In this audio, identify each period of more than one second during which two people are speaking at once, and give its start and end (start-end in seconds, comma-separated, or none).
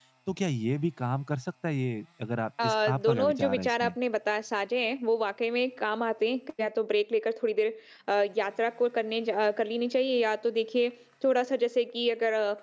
2.6-4.0